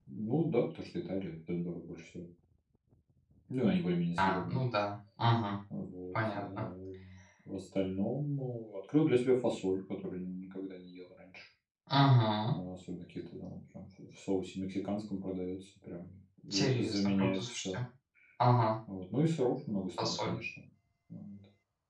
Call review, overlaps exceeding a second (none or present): present